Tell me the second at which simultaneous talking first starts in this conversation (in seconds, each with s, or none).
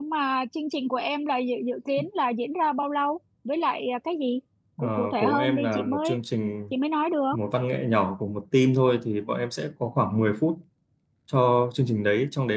4.8 s